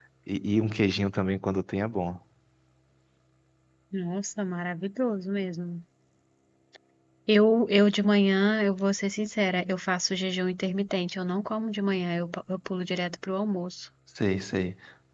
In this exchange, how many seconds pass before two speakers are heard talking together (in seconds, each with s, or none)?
none